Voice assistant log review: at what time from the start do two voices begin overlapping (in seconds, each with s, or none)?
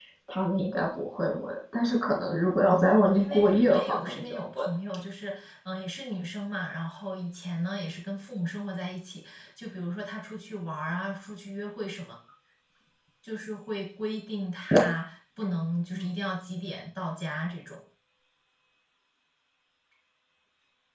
2.6 s